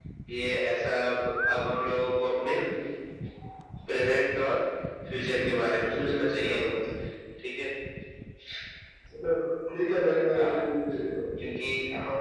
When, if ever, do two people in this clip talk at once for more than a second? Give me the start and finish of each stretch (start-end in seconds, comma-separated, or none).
5.2-6.6